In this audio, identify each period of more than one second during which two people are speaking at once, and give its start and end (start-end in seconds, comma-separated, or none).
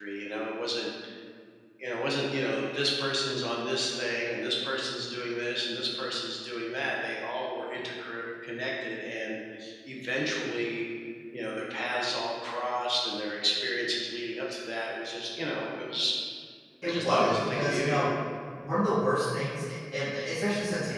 16.8-18.0